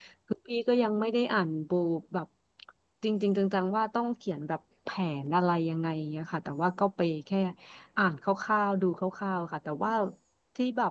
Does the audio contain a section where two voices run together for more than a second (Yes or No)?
No